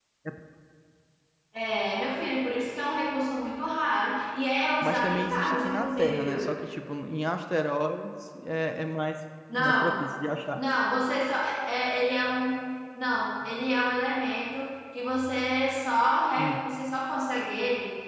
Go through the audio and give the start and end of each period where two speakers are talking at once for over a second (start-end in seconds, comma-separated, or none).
4.8-6.5